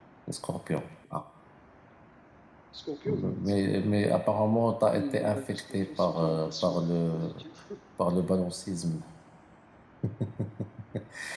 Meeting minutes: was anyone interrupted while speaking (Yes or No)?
Yes